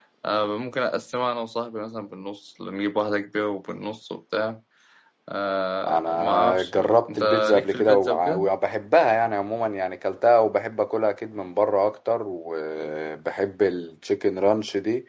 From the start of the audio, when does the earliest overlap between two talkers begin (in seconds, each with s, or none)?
5.9 s